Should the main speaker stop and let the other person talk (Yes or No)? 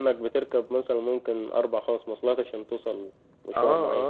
Yes